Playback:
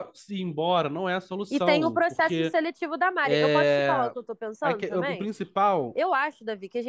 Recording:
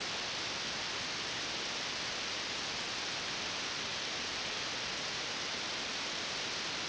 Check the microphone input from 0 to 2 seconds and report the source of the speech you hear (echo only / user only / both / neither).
neither